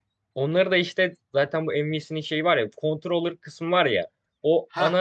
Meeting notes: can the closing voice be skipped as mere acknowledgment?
Yes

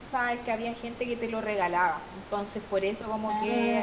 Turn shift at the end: No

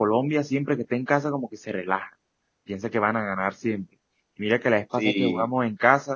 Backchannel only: Yes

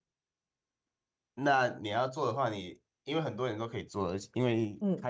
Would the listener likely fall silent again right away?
Yes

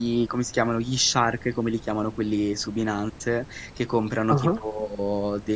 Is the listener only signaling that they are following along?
Yes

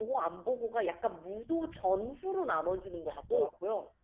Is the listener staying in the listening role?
No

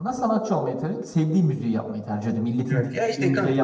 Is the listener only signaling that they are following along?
No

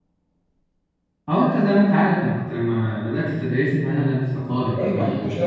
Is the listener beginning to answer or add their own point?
Yes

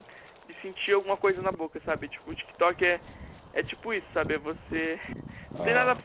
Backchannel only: Yes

